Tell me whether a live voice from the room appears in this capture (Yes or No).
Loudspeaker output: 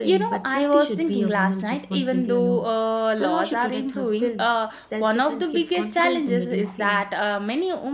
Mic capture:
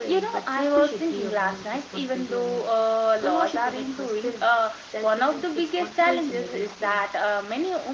No